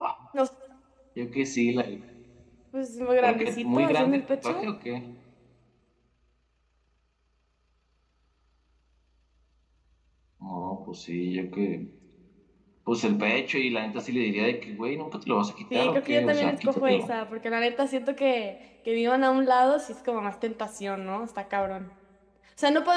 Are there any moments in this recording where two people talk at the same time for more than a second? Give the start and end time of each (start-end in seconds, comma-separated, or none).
3.2-4.7, 15.7-17.1